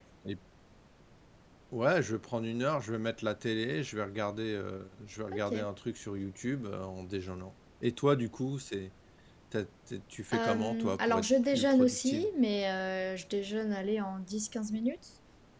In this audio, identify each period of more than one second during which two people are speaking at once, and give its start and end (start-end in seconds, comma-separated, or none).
10.3-12.3